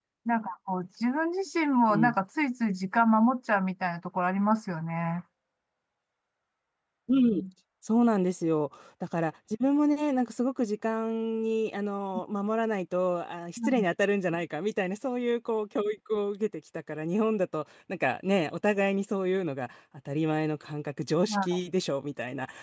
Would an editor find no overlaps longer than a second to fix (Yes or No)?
Yes